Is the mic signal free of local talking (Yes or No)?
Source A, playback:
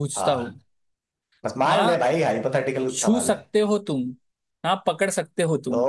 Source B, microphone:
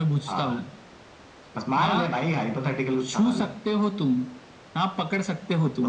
Yes